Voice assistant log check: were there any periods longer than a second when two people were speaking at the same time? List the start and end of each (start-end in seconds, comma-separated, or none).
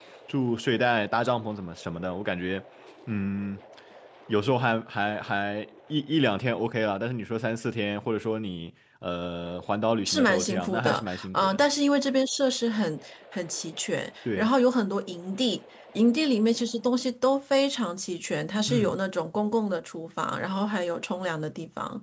10.1-11.6